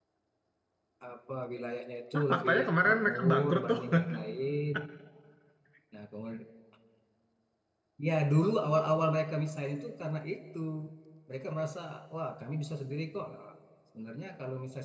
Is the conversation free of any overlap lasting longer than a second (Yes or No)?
No